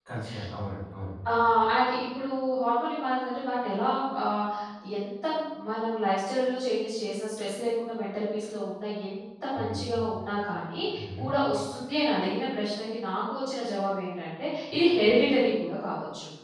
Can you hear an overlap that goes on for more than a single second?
No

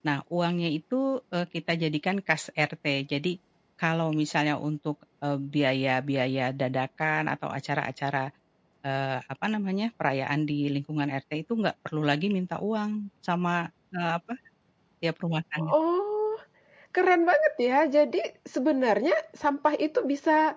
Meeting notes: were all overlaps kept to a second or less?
Yes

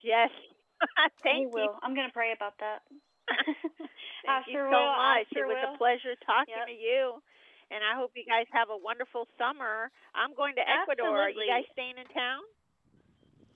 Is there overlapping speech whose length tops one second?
Yes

